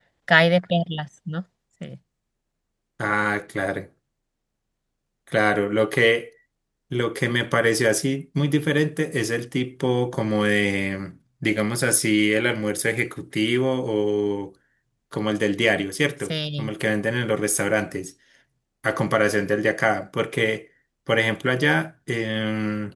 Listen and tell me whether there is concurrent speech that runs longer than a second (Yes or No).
No